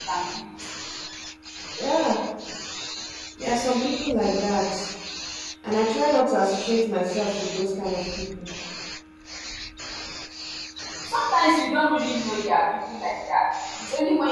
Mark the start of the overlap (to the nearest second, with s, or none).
none